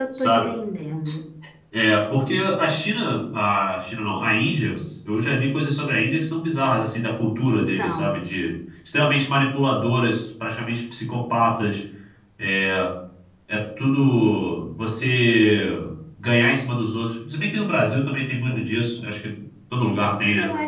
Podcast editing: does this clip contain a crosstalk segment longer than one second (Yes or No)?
No